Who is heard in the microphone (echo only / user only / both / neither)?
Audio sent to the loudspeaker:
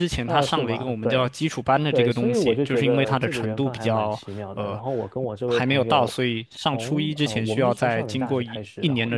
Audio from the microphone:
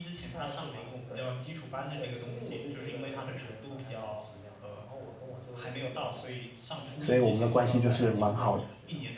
both